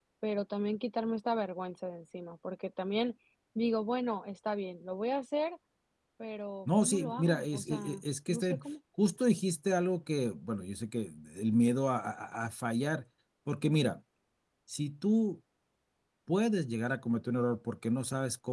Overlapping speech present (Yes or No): Yes